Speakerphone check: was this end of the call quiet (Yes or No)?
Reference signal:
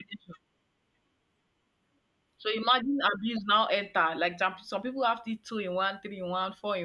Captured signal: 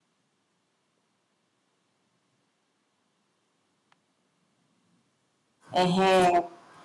No